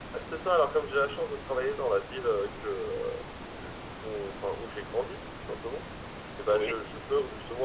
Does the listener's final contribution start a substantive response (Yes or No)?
No